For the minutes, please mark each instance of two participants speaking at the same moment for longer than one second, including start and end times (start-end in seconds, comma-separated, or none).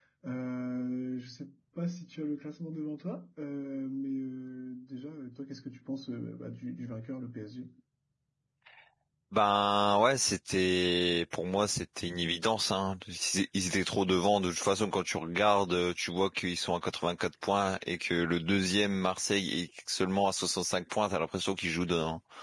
none